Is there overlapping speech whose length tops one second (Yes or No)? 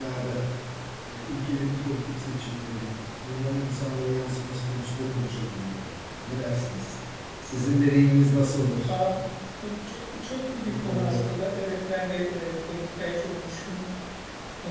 No